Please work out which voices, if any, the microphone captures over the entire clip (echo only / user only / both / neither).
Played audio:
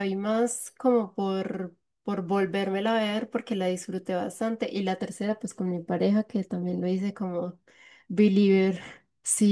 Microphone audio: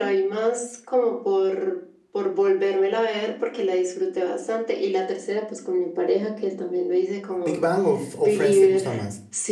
both